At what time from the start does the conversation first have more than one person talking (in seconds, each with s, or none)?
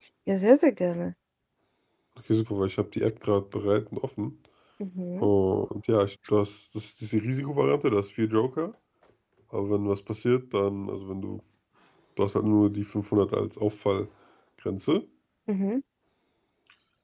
none